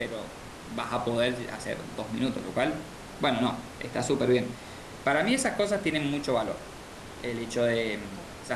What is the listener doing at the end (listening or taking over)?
listening